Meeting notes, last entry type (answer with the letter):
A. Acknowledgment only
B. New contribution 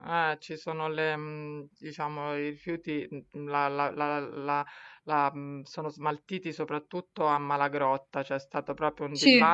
A